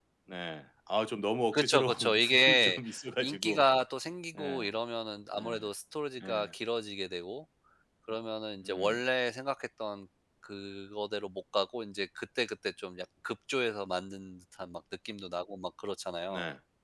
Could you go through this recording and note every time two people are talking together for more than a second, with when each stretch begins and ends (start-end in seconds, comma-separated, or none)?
1.5-2.8